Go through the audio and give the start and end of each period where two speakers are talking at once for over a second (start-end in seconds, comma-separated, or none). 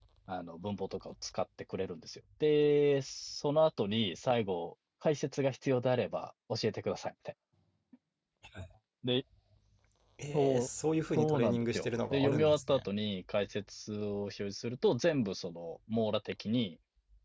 11.2-12.8